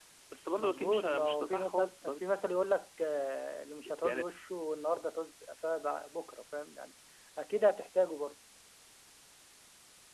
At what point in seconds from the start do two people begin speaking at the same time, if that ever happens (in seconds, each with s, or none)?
0.6 s